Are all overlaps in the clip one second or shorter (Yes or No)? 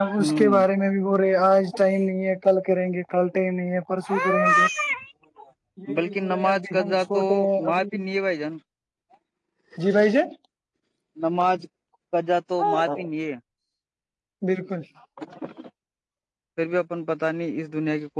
No